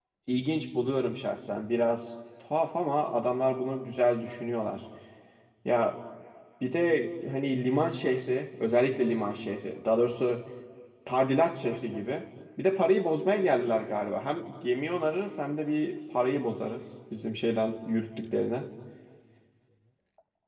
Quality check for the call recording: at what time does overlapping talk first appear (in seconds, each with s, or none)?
none